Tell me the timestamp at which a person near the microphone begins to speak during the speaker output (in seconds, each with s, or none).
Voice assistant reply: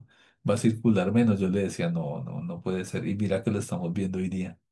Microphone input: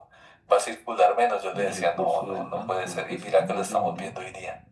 1.5 s